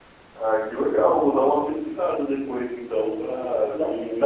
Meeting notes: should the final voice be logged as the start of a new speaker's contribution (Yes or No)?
Yes